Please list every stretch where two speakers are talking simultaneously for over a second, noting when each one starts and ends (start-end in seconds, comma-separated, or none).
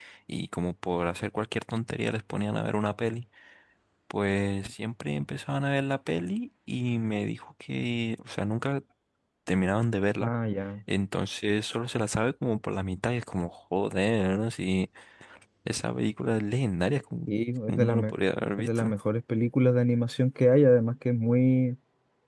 none